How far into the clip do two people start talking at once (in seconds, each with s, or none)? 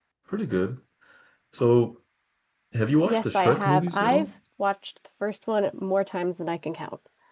3.0 s